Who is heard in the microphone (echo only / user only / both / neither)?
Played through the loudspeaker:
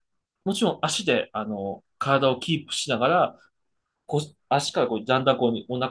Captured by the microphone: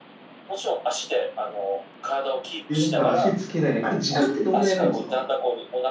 both